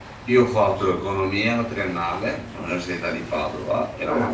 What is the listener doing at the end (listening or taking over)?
listening